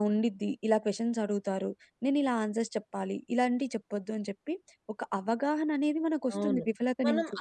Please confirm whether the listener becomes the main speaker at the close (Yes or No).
Yes